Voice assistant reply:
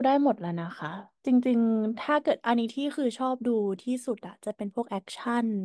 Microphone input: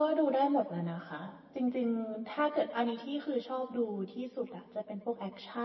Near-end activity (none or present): none